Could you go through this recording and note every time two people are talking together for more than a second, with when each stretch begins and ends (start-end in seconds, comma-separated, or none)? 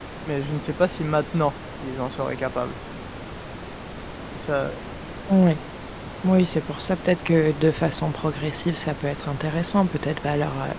none